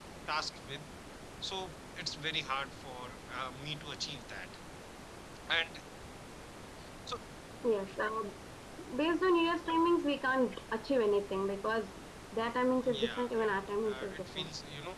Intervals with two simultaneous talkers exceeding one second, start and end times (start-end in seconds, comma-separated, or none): 12.8-14.5